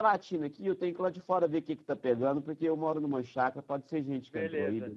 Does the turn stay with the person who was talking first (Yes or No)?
No